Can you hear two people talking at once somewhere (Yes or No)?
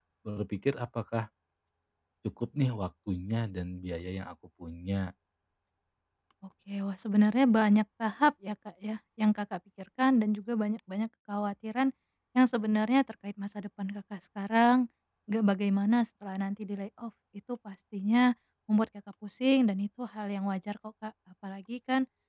No